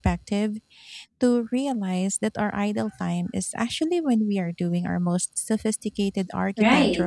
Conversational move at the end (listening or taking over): taking over